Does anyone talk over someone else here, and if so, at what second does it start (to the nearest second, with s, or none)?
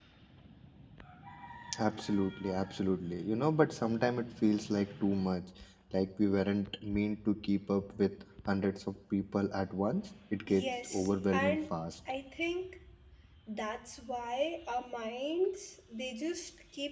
10 s